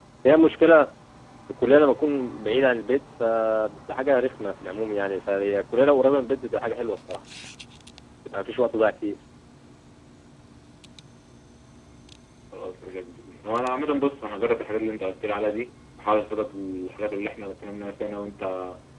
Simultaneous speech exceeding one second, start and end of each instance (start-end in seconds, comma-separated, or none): none